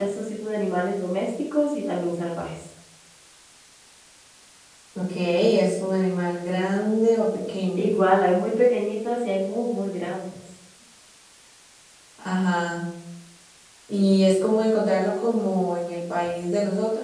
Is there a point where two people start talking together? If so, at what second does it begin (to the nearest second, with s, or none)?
none